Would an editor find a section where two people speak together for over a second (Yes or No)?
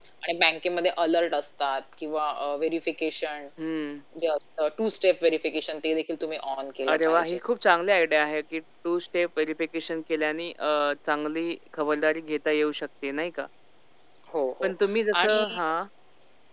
No